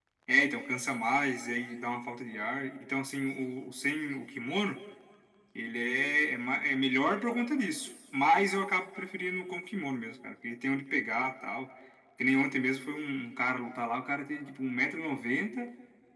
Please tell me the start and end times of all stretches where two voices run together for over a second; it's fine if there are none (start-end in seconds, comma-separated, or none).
none